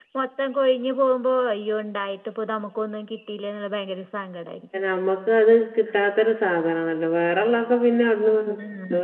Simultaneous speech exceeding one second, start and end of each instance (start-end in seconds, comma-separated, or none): none